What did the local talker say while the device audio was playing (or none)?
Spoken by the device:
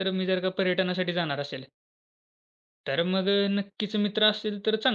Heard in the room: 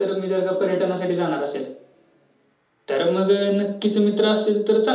none